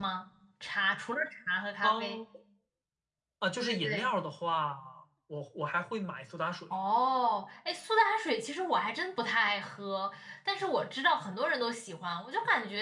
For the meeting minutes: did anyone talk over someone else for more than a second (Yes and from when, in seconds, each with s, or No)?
No